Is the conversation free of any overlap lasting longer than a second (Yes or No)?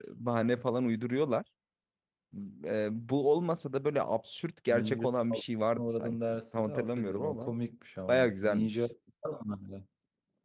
No